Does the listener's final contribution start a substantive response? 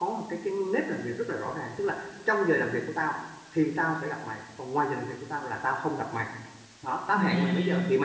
No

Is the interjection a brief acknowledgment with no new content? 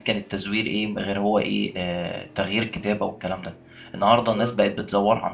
Yes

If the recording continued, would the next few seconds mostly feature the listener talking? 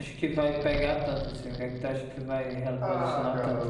Yes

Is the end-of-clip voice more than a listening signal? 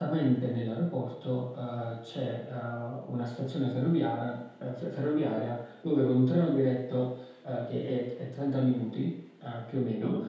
No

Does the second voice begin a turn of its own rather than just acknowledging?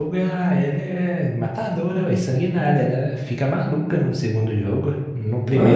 Yes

